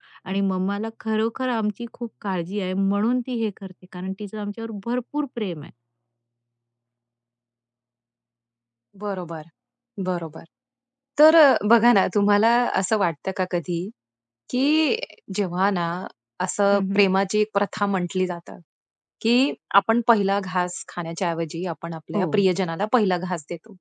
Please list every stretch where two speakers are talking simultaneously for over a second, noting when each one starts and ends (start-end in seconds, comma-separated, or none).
none